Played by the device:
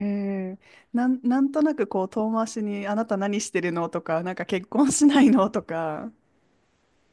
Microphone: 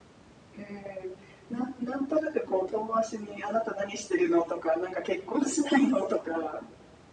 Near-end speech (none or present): none